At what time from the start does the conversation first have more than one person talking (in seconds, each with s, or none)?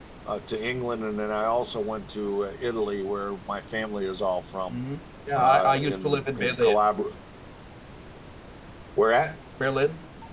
5.3 s